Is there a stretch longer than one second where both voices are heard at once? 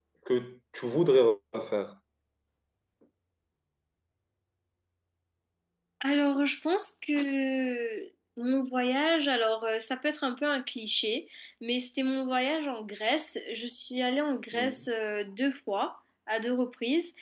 No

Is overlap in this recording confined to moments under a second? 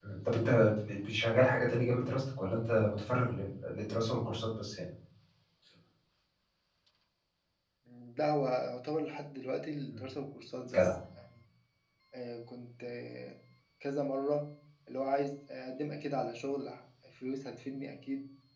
Yes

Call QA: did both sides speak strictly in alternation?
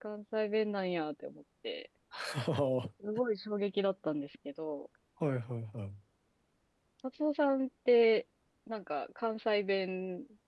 Yes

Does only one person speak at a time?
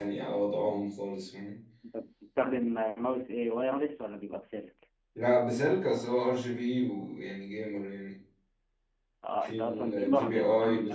No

